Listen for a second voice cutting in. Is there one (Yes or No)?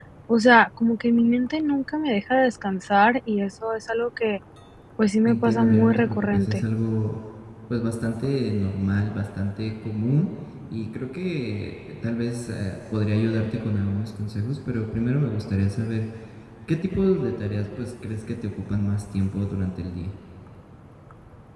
Yes